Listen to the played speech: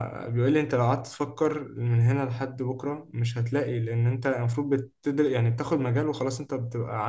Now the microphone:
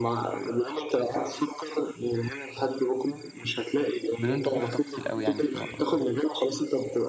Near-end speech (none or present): present